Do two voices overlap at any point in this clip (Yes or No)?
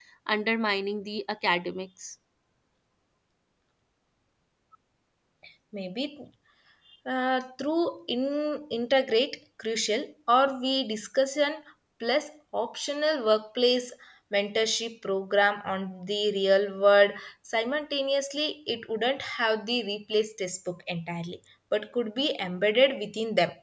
No